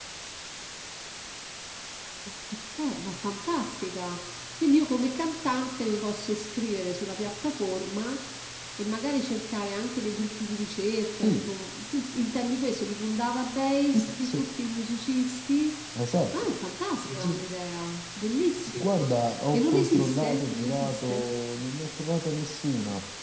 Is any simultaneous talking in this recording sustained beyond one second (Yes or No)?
Yes